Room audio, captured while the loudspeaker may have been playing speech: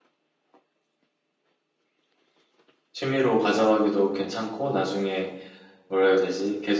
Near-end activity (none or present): present